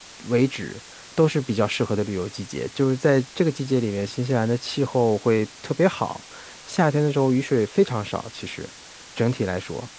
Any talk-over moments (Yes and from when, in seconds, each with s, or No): No